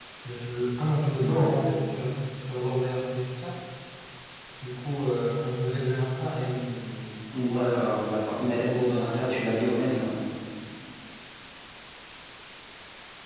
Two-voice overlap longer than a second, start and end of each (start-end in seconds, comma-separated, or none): 7.4-10.0